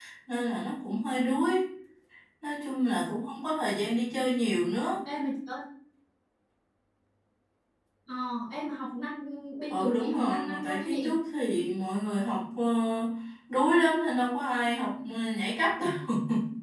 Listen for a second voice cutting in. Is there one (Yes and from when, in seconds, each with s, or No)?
Yes, from 9.7 s